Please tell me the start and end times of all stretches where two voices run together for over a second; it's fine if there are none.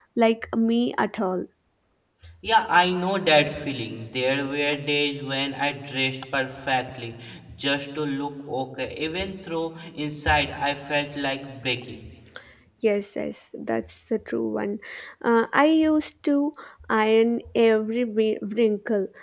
none

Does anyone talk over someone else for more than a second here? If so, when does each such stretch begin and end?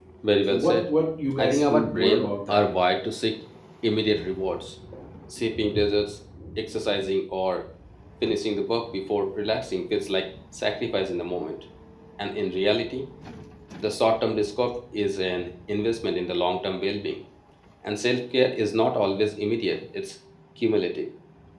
1.4-2.6

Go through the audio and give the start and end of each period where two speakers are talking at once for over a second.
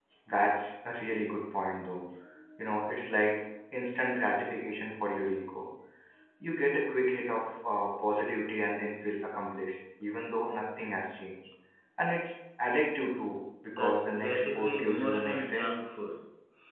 13.8-15.7

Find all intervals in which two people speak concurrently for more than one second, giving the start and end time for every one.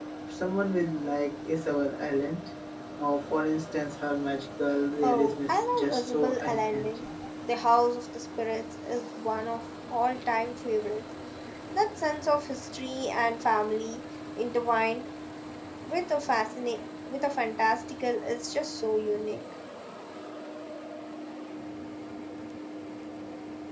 5.0-7.0

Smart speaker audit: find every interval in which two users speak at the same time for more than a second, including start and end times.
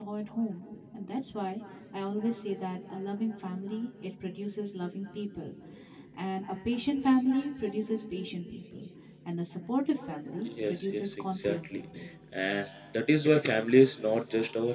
10.4-11.8

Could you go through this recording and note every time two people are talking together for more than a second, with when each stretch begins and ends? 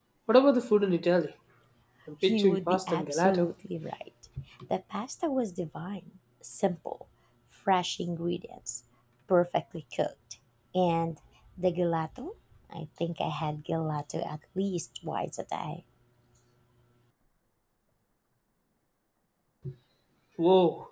2.2-3.5

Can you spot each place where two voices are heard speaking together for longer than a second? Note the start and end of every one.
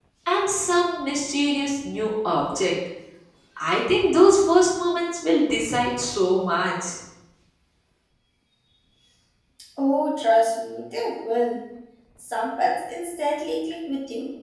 none

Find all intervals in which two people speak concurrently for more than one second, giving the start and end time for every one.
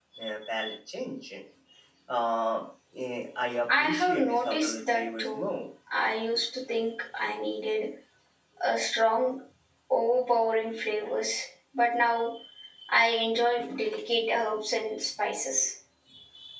3.8-5.5

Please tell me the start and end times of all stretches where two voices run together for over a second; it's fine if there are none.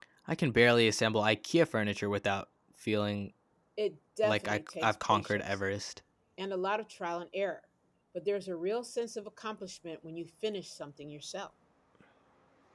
4.2-5.6

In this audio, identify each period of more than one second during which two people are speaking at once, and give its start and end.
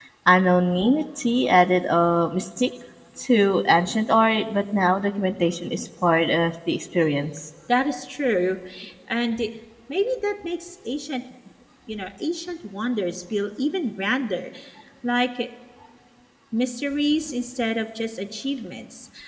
none

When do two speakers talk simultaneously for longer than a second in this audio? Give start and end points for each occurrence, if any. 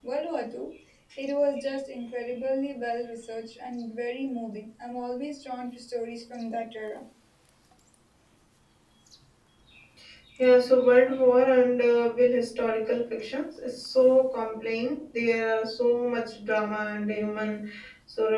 none

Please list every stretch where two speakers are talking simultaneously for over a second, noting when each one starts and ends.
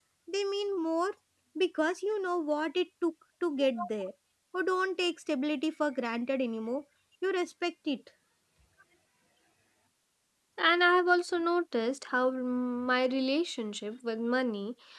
none

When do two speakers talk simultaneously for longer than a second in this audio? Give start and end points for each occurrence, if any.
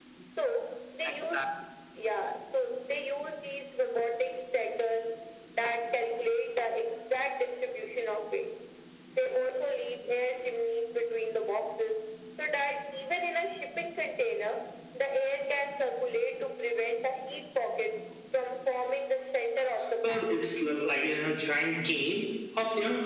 none

